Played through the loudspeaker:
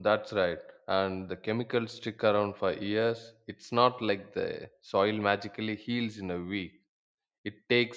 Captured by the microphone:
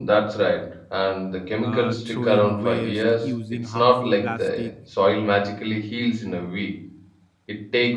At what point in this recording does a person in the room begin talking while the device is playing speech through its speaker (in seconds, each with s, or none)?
1.6 s